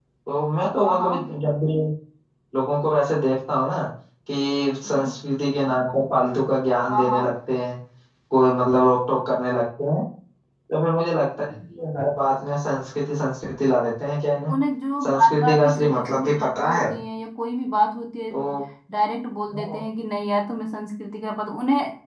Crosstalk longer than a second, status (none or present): present